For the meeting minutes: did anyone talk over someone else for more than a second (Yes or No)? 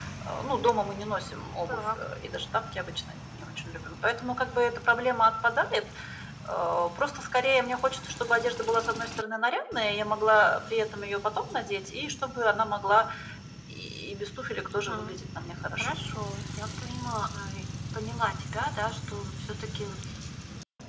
No